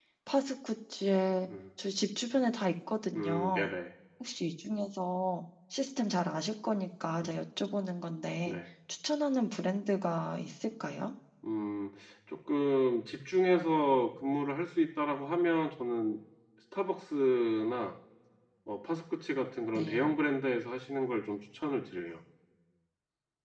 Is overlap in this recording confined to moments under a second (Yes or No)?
Yes